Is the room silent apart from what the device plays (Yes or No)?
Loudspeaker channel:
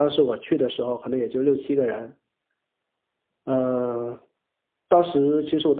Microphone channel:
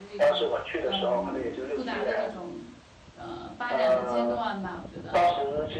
No